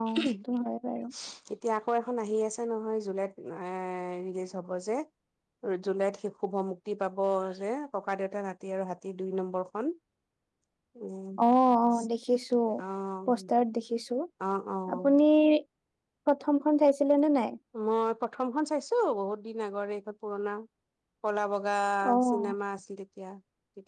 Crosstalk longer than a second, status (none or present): none